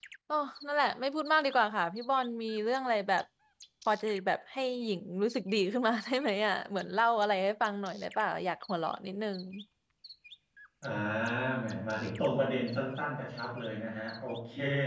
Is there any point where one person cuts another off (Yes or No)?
No